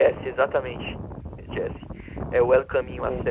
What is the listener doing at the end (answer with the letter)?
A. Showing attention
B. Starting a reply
A